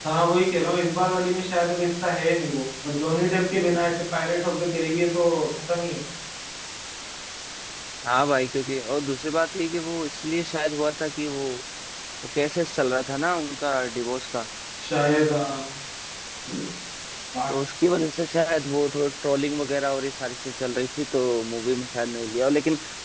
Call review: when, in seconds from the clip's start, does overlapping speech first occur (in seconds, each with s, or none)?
none